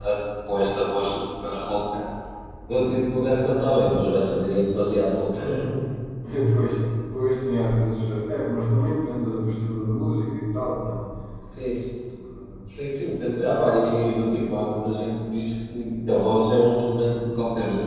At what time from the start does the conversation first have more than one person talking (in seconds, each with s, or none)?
none